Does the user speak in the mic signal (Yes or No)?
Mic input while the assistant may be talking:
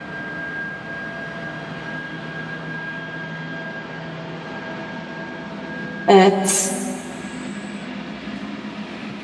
Yes